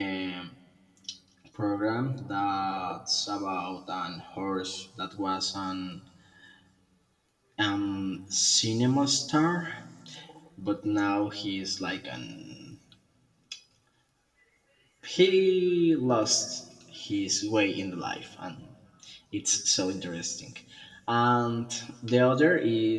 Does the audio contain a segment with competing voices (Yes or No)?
No